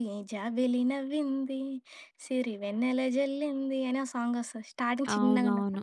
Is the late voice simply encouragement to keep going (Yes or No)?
No